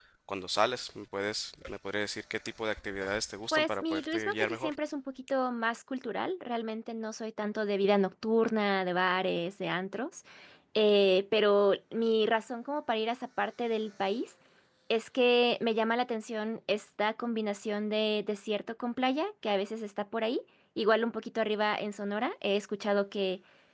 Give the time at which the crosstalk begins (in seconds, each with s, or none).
3.5 s